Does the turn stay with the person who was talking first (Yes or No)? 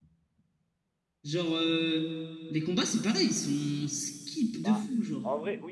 No